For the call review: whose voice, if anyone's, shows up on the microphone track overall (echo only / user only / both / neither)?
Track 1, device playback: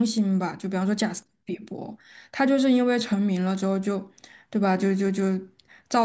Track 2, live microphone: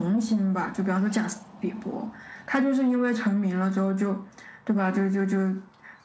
echo only